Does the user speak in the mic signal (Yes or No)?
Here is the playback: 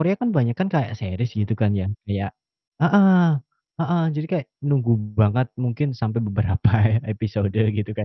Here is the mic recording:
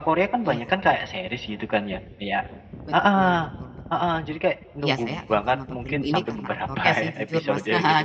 Yes